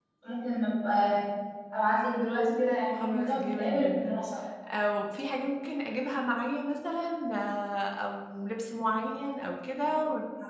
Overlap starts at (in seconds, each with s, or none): 2.9 s